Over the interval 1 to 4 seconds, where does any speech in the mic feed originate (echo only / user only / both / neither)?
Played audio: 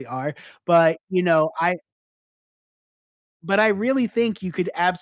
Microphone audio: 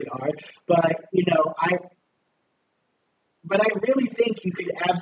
echo only